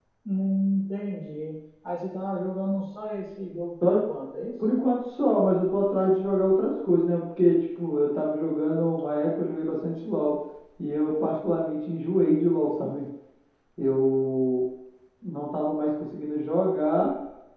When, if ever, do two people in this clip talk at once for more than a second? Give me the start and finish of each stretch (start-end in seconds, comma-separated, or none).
none